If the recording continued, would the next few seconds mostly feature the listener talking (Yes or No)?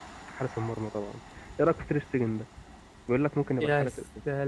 Yes